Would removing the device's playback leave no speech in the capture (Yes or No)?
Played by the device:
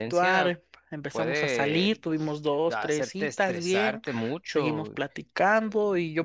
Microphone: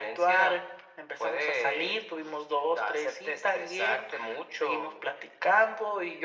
Yes